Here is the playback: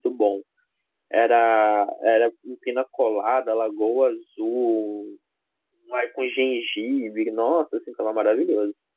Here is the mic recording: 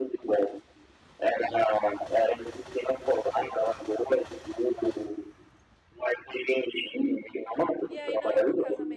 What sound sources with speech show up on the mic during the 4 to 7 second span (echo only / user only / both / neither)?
echo only